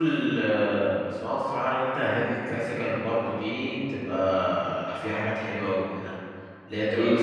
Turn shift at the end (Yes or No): No